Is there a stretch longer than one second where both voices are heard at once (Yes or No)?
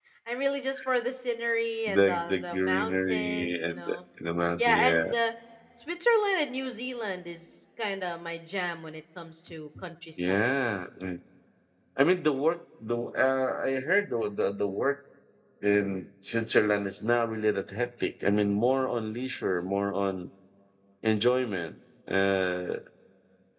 Yes